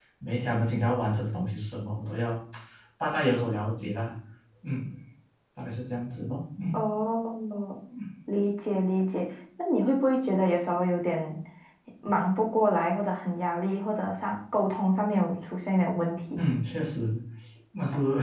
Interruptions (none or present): none